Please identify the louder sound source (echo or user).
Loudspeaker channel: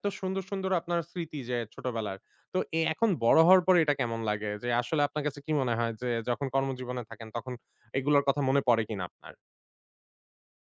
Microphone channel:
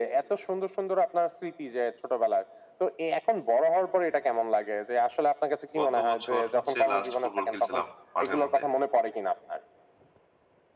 echo